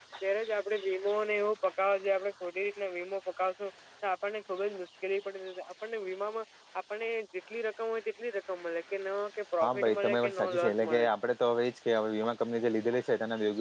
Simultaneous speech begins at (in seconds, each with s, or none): 9.6 s